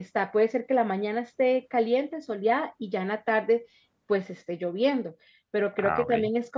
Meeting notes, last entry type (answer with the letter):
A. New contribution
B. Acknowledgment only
B